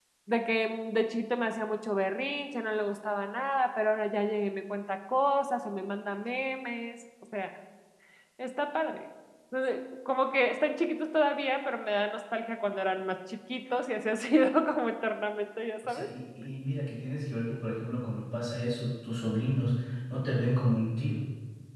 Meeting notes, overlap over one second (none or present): none